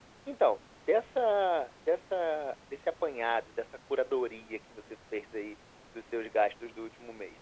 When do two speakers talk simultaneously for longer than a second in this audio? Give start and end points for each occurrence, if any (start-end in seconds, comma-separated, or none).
none